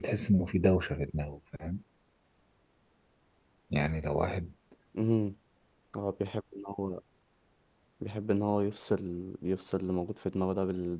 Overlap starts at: none

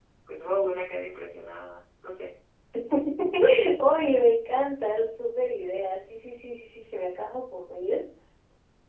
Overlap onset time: none

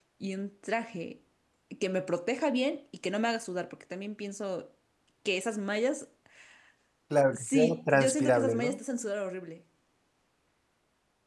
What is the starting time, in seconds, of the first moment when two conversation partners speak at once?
7.3 s

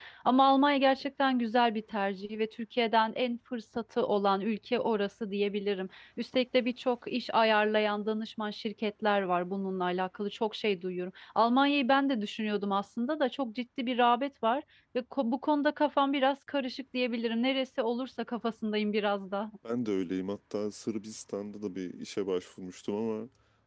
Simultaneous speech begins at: none

